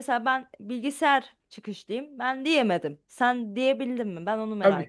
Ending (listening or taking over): taking over